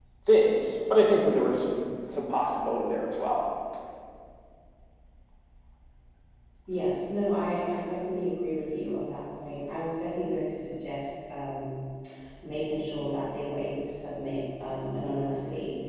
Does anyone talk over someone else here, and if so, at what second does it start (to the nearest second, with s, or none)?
none